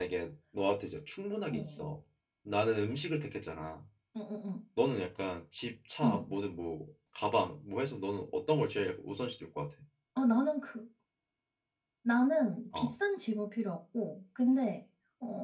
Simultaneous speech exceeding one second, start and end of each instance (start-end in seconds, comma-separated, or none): none